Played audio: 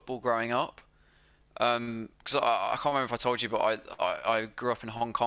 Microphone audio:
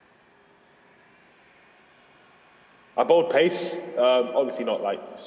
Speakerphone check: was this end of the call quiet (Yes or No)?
No